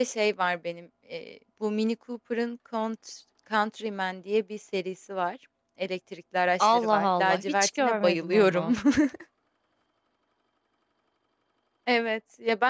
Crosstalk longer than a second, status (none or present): present